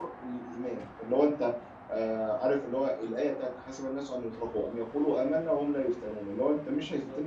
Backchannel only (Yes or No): Yes